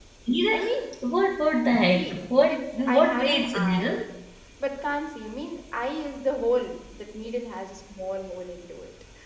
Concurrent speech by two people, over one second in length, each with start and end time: 1.9-3.9

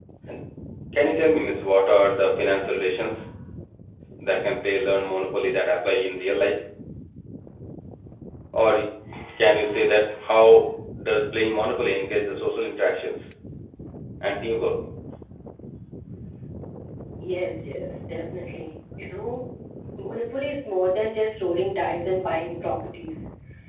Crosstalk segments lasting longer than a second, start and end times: none

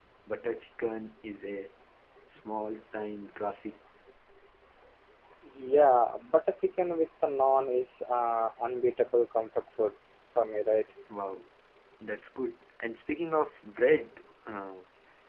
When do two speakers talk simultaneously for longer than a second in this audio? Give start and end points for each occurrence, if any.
none

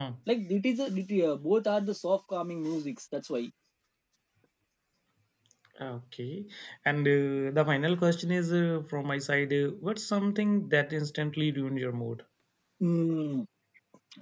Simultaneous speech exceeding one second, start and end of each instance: none

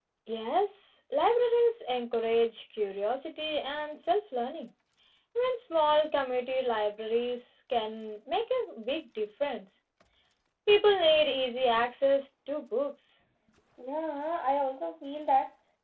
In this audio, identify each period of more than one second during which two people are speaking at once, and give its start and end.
none

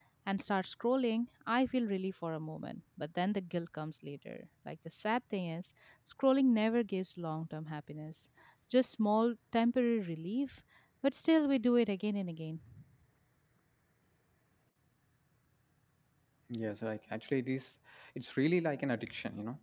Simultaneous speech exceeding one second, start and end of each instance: none

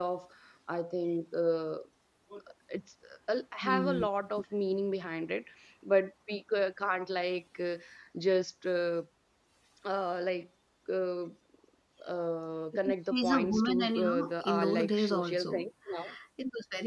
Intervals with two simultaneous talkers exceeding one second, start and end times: 12.8-15.6

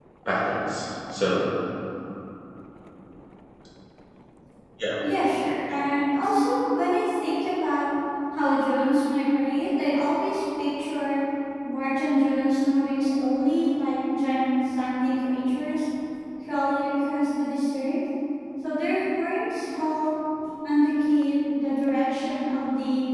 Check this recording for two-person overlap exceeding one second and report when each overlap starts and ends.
none

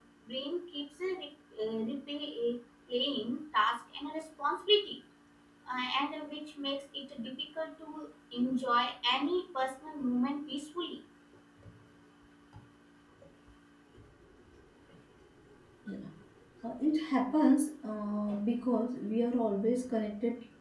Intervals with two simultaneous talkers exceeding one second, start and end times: none

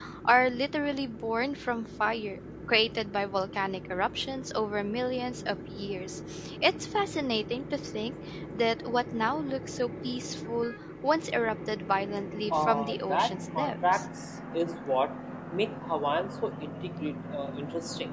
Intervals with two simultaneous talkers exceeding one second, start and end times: 12.5-14.0

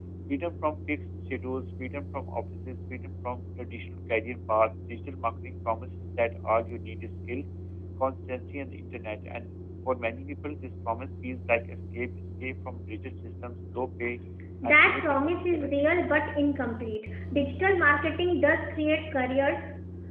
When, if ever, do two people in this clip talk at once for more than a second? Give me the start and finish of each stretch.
14.6-15.8

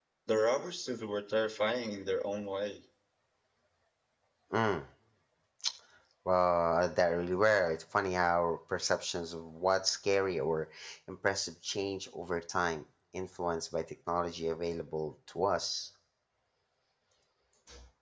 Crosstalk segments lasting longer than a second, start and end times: none

